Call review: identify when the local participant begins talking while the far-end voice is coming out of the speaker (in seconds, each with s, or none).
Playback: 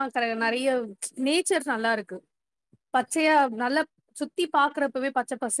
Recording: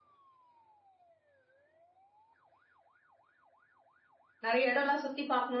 4.5 s